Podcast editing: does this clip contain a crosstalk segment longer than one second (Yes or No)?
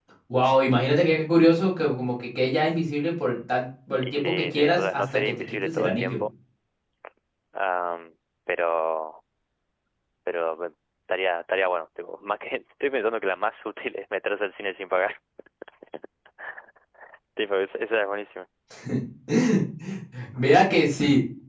Yes